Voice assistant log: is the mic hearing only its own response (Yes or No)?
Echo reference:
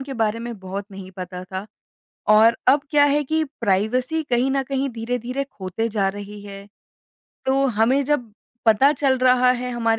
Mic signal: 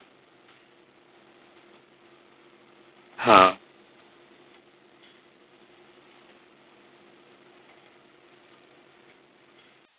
No